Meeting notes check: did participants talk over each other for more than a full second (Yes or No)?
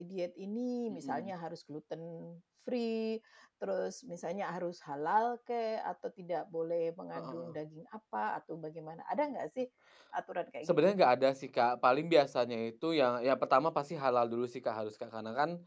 No